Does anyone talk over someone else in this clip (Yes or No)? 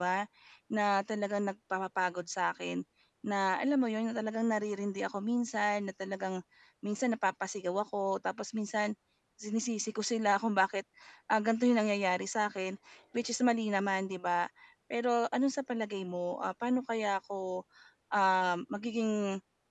No